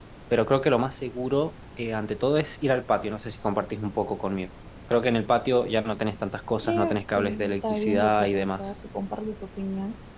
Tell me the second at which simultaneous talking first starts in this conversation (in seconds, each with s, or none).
6.6 s